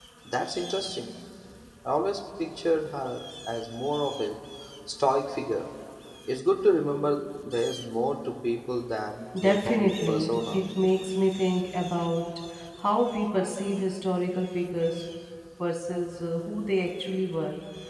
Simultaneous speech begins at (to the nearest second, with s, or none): 9 s